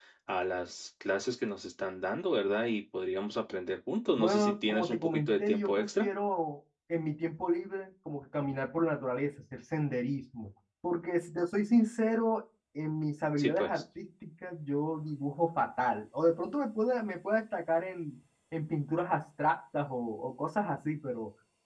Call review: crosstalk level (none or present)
present